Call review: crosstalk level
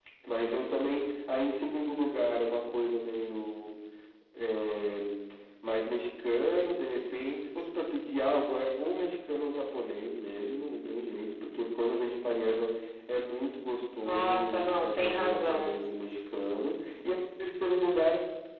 present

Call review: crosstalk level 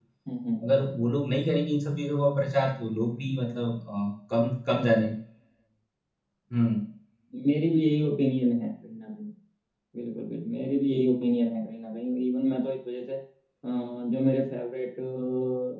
none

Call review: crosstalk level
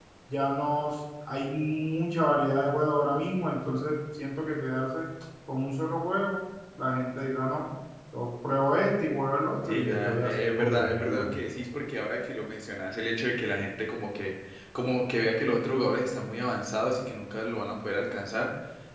present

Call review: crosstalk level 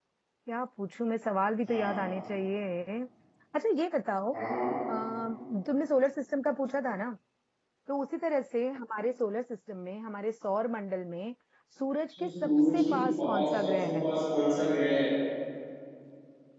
present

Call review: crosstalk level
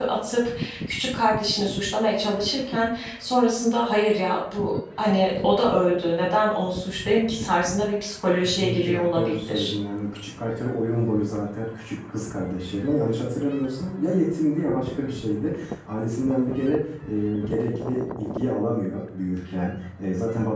present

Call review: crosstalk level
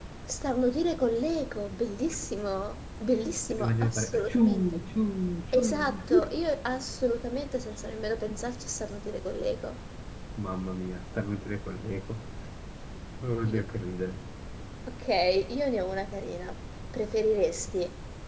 present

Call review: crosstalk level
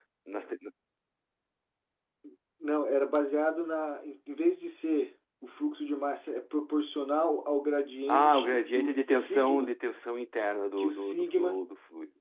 present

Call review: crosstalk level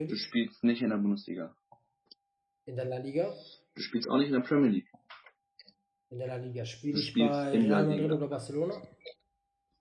present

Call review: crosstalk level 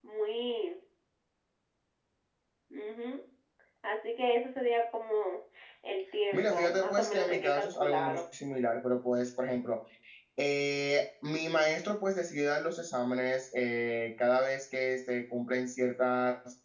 present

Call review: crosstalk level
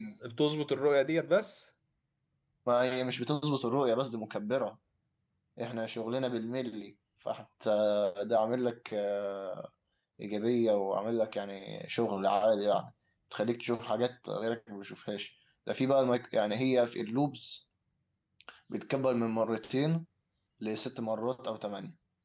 none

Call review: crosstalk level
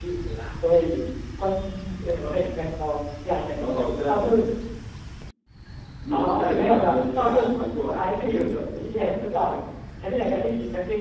present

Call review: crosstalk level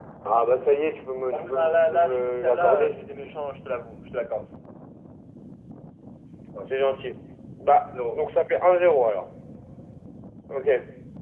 present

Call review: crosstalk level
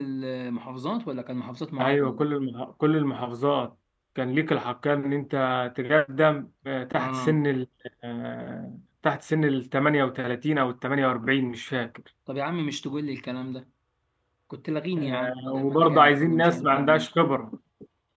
present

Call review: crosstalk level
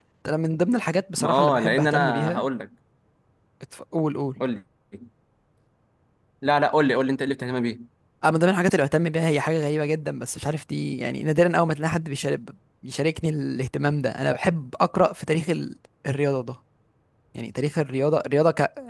present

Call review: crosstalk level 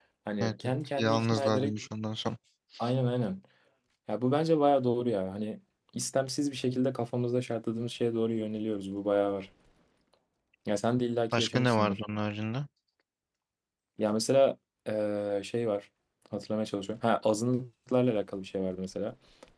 present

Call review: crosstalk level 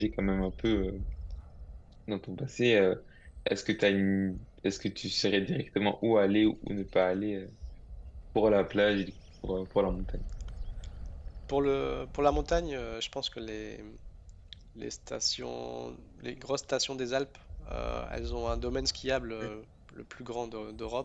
none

